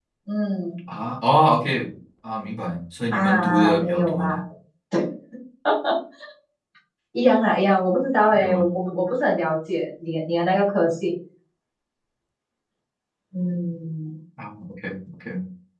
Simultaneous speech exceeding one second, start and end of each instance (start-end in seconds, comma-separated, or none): 3.1-4.3